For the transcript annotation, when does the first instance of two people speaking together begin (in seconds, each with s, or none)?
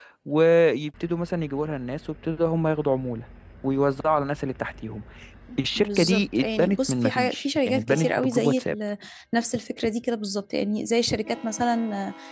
5.8 s